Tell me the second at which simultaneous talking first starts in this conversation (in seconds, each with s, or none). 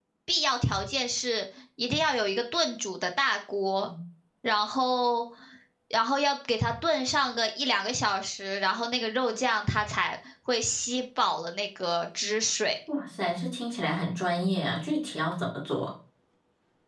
none